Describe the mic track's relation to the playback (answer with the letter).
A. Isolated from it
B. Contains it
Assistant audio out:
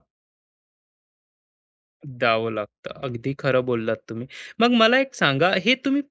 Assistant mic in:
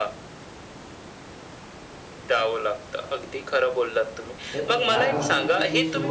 B